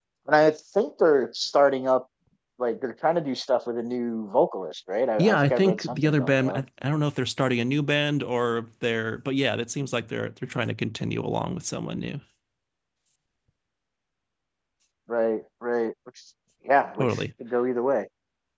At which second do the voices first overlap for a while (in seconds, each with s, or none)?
5.2 s